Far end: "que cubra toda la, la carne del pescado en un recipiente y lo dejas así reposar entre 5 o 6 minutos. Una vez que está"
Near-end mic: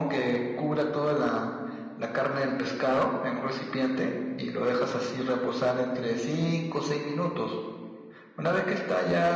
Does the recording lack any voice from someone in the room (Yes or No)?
Yes